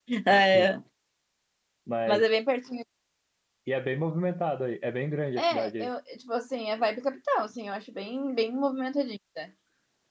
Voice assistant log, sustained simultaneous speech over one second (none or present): none